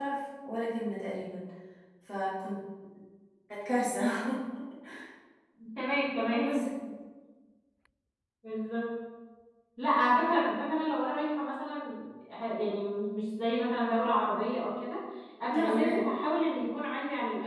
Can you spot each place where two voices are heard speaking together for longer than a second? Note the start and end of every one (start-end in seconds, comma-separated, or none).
none